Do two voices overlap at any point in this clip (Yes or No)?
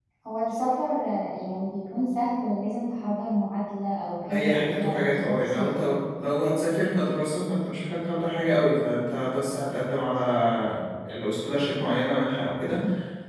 Yes